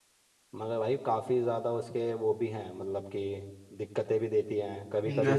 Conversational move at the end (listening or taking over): listening